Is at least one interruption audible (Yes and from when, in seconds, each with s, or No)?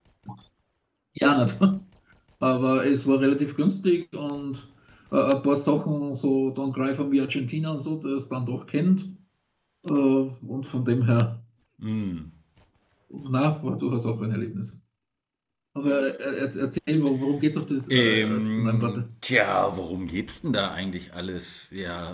Yes, from 17.9 s